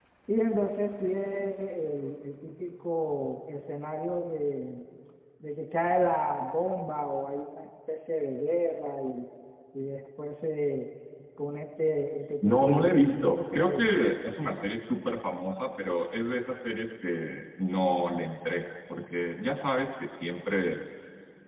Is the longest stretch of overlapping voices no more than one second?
No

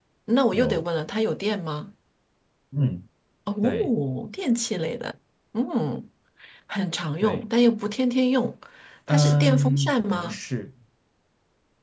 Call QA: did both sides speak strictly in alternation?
No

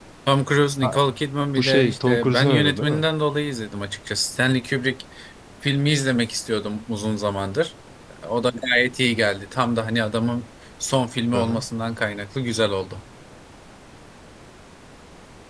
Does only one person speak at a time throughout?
No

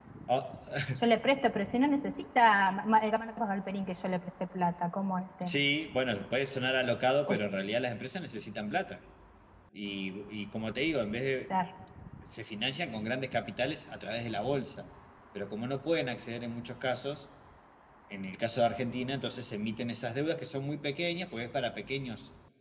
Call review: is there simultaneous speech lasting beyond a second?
No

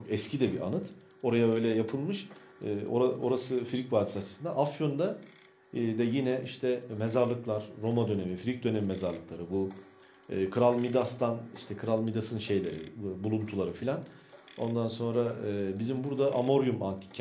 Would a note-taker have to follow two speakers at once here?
No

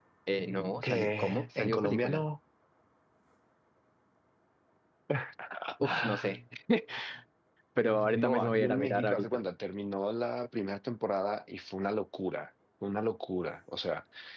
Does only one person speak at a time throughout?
No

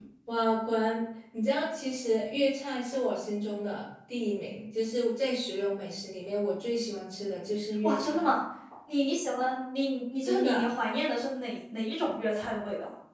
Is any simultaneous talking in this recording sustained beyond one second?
No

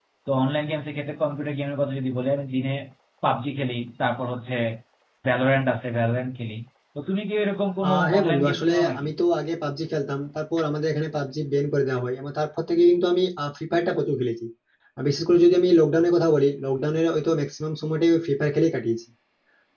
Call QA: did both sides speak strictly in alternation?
No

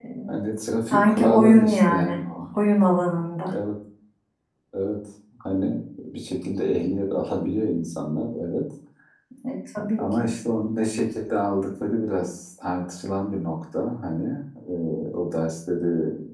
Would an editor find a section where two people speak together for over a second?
Yes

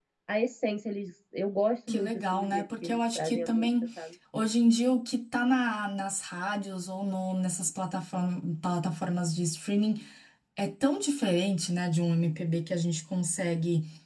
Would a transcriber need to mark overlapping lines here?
Yes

